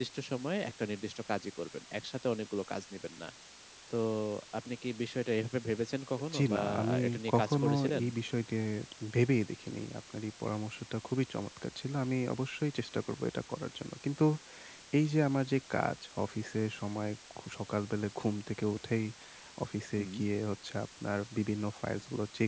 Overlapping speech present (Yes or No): Yes